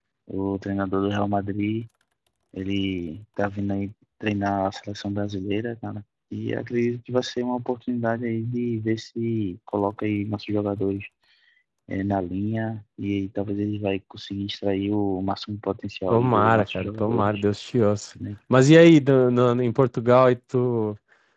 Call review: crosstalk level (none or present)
present